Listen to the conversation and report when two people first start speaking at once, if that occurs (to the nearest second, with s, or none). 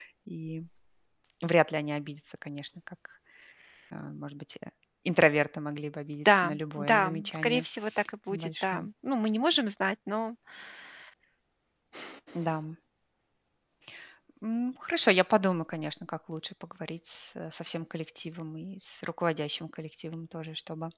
6 s